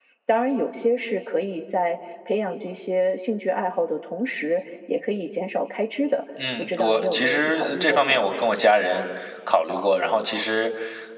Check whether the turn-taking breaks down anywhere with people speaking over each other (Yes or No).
Yes